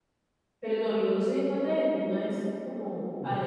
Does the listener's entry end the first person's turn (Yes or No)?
Yes